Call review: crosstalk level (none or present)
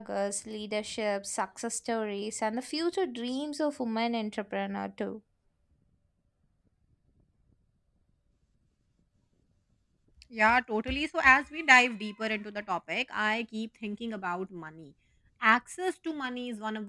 none